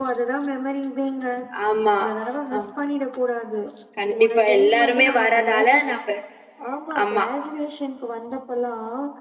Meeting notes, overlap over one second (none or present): present